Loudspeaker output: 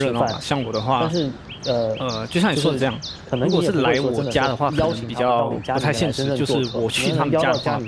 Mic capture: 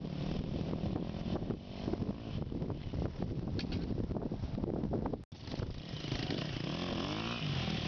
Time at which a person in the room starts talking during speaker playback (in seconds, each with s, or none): none